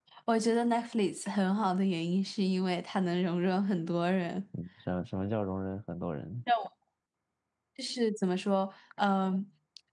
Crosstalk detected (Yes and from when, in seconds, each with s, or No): No